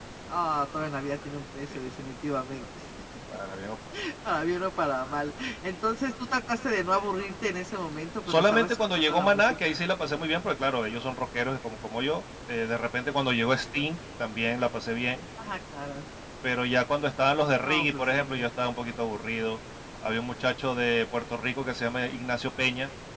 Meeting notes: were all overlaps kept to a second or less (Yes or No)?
No